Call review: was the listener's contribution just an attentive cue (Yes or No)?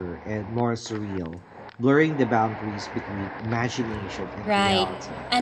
No